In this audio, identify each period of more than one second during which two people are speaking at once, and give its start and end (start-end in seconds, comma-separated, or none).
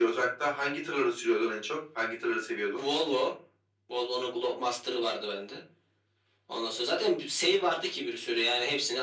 none